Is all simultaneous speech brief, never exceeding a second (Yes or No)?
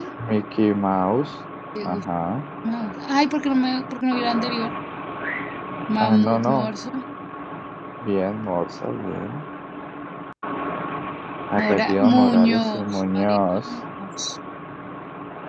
No